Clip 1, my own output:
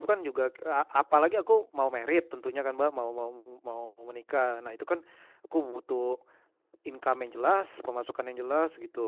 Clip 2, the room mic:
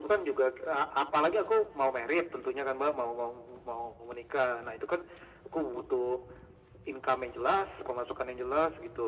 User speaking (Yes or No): No